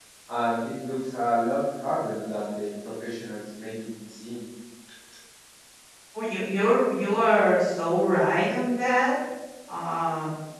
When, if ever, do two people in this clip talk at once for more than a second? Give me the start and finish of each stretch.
none

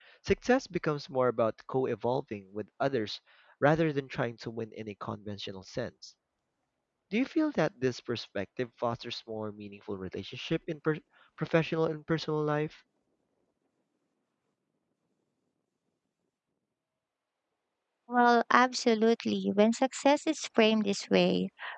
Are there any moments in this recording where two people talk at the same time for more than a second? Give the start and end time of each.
none

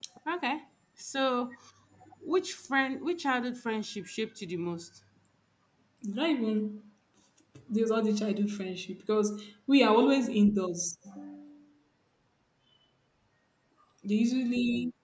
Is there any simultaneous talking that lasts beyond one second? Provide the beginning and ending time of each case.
none

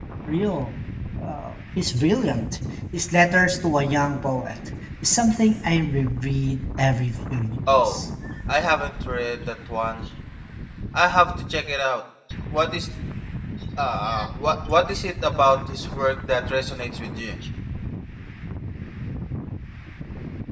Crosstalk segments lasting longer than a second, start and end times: none

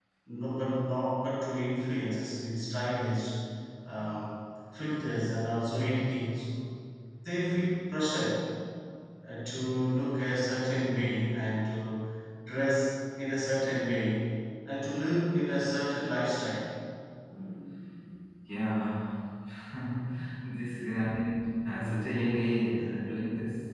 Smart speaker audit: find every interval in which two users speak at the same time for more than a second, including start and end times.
none

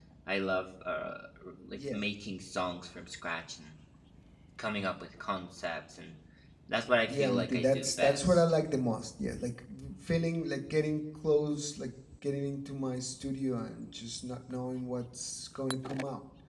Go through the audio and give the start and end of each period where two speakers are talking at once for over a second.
7.0-8.4

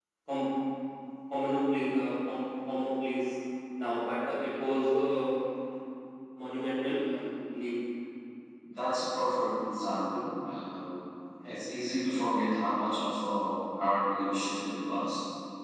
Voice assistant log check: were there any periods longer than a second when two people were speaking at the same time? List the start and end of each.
none

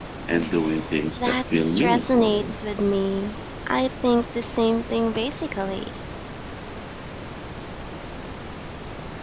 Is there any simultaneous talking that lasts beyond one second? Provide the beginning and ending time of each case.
1.2-2.5

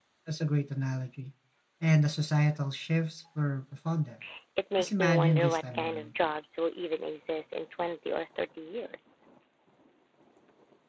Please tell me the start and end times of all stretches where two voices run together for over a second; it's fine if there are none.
4.8-6.1

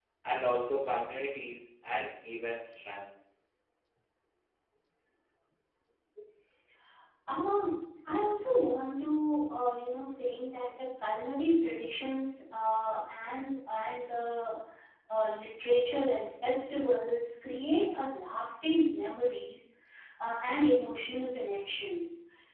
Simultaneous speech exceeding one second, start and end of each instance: none

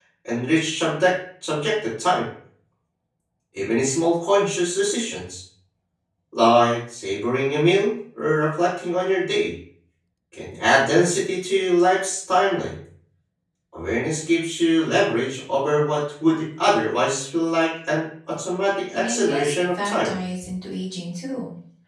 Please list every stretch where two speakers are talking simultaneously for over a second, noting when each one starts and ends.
18.9-20.1

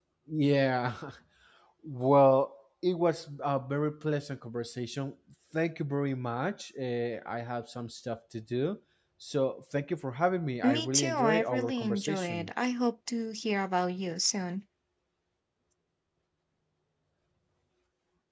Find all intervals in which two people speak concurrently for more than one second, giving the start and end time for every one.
10.6-12.5

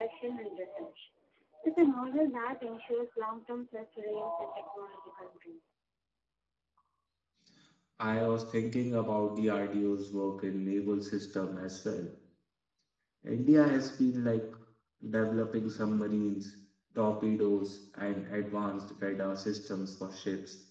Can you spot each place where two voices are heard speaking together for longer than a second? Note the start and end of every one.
none

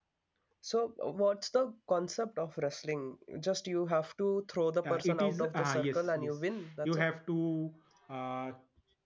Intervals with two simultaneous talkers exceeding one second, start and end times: 4.8-6.4

